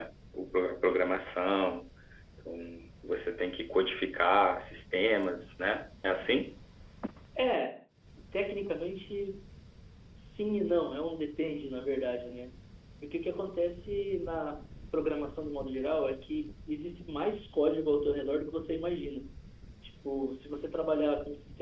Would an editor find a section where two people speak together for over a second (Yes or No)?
No